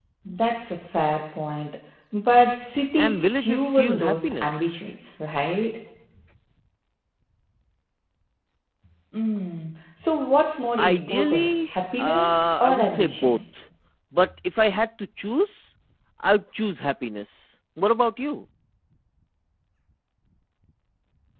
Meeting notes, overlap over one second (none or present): present